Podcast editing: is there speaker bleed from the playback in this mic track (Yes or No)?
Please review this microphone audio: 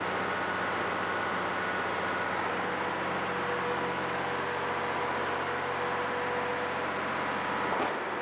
No